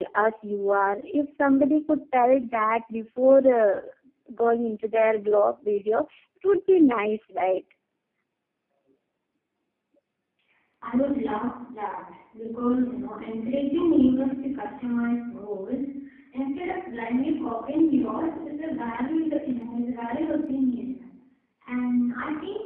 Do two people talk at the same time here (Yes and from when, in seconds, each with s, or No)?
No